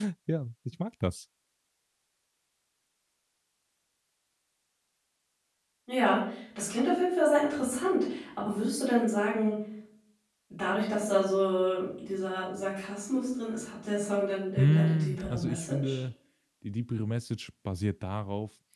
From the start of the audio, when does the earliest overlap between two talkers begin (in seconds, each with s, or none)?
14.6 s